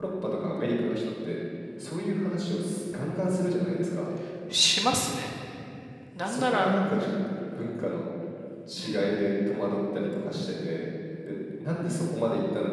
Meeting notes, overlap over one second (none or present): none